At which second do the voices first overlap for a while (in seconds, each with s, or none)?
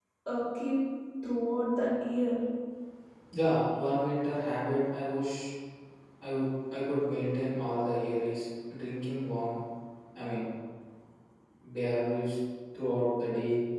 none